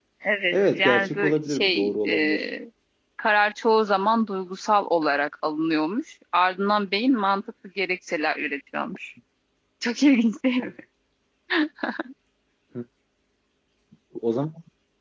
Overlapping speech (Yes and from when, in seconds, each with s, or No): Yes, from 0.5 s